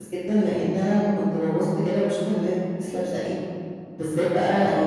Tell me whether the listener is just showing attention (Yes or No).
Yes